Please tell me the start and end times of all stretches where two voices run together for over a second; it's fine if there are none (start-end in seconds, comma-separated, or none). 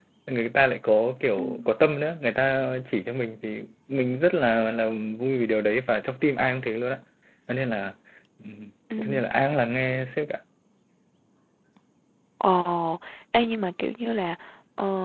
none